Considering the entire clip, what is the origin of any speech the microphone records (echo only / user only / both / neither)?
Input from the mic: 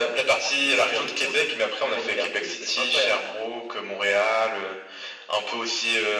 echo only